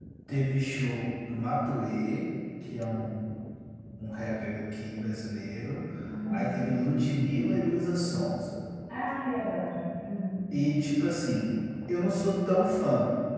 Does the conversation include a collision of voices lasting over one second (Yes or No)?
No